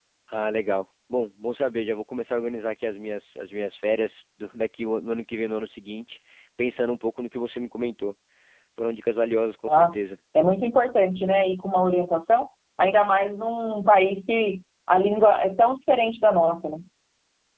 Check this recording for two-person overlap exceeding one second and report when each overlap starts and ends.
none

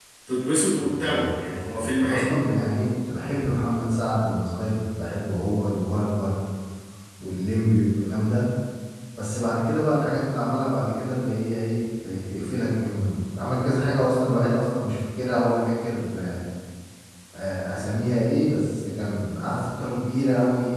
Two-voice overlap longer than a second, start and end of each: 0.8-2.3

